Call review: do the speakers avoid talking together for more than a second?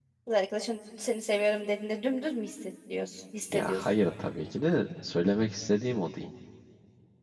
Yes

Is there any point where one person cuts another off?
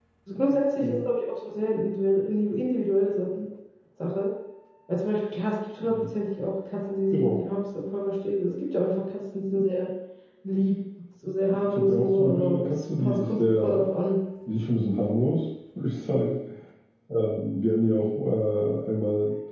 Yes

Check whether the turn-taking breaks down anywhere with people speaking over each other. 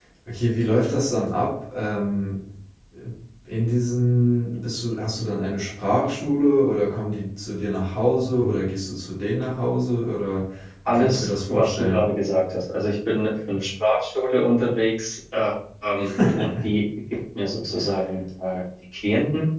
Yes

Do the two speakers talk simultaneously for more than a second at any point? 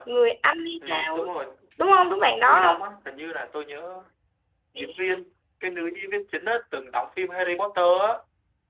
No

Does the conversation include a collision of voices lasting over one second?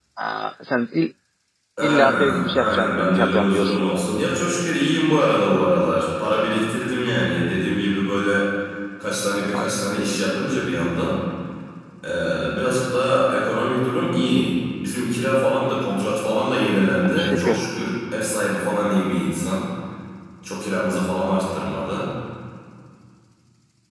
Yes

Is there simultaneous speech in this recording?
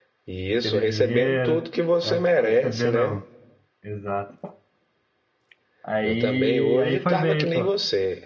Yes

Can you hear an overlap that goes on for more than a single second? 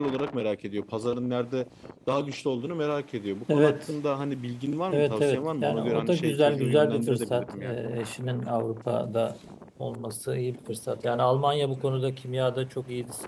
Yes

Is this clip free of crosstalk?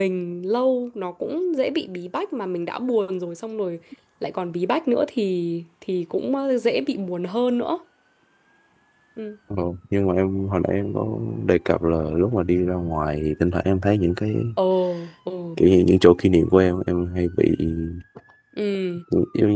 Yes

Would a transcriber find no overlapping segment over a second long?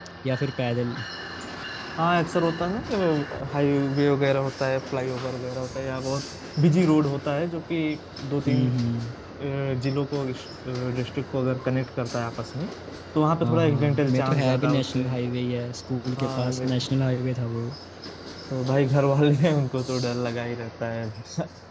No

